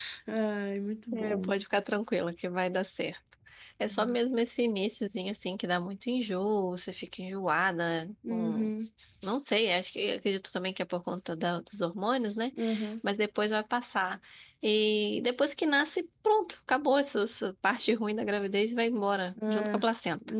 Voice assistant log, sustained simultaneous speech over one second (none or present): none